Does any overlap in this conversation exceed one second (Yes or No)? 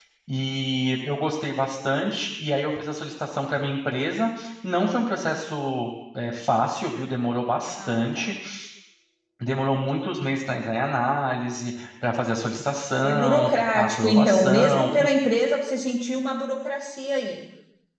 Yes